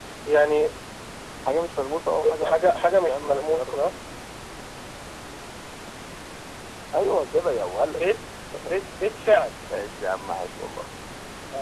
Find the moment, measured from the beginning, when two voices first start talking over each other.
2.2 s

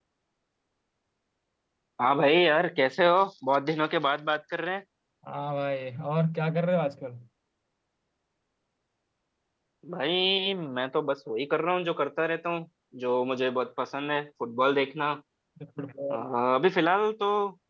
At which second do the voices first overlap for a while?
none

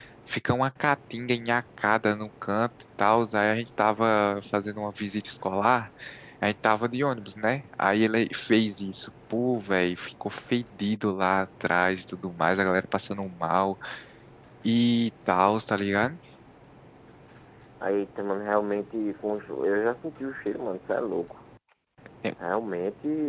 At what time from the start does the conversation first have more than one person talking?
none

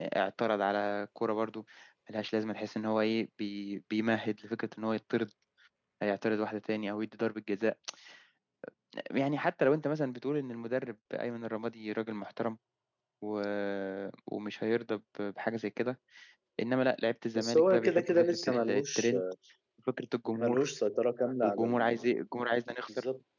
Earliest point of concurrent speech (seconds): 17.4 s

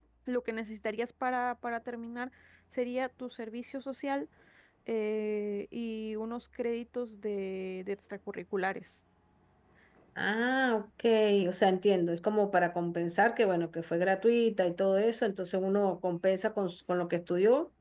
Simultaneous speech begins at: none

